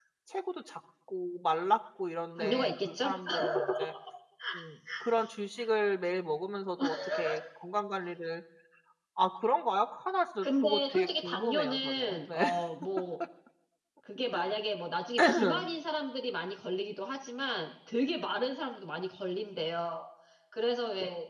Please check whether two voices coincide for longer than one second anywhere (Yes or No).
Yes